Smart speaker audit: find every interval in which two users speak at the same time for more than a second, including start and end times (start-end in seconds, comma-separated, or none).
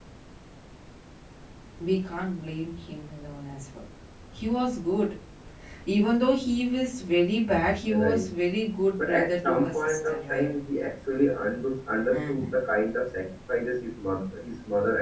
9.0-10.5